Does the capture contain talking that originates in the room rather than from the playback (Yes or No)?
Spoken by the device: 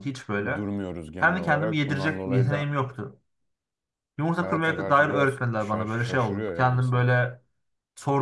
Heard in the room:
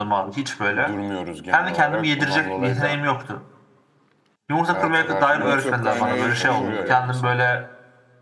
Yes